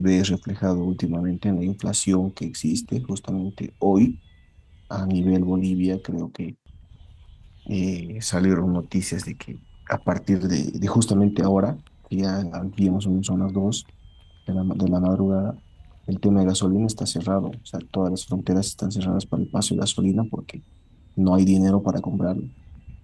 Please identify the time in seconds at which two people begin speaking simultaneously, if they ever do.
none

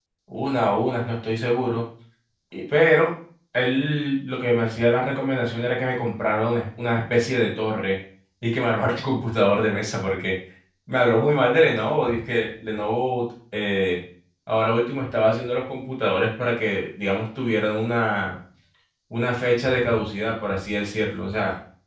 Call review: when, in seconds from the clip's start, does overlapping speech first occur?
none

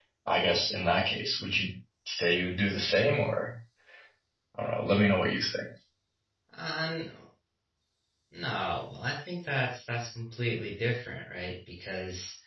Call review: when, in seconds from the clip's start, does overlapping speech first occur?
none

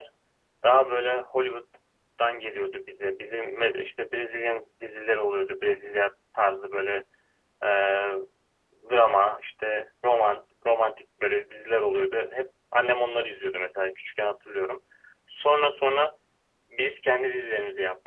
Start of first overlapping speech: none

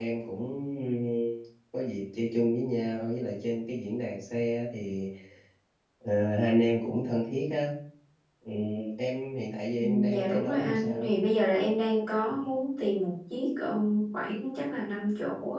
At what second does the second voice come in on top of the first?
9.8 s

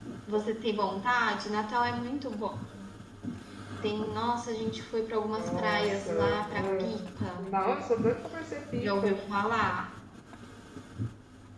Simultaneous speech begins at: 5.4 s

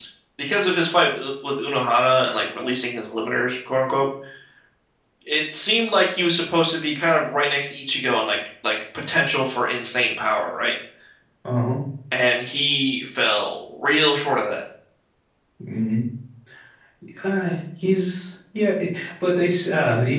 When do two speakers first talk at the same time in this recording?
none

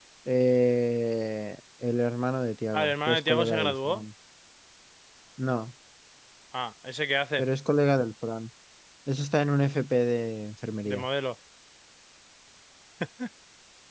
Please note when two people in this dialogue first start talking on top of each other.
2.7 s

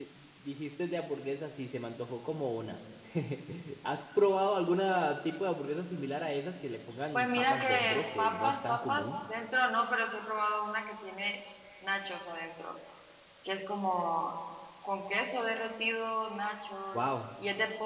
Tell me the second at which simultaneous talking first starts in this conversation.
7.1 s

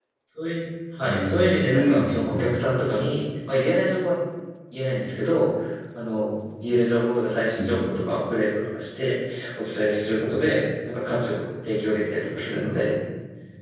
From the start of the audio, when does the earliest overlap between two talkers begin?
1.0 s

